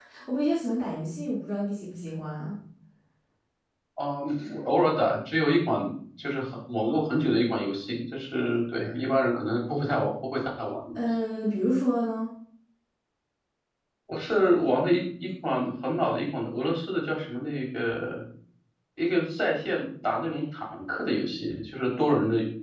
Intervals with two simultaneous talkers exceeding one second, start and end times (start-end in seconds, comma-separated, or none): none